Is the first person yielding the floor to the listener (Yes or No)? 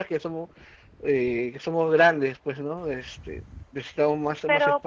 Yes